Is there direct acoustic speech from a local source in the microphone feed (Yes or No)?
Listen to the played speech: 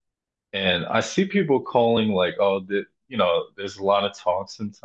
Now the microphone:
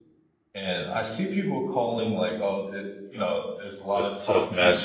Yes